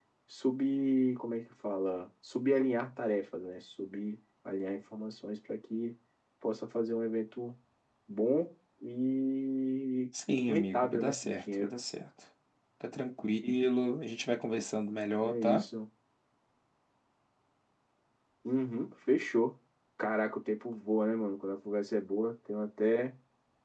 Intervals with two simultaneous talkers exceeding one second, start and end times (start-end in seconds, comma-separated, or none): 10.3-11.7